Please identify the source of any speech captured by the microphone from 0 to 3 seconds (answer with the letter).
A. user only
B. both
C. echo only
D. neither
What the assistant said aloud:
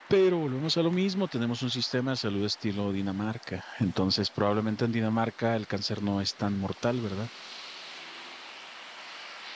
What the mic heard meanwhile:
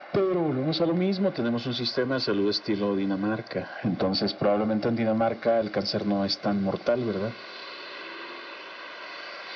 C